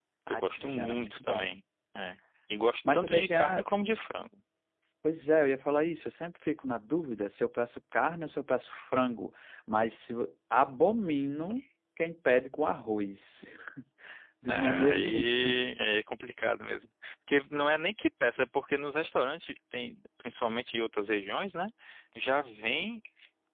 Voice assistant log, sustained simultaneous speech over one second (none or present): present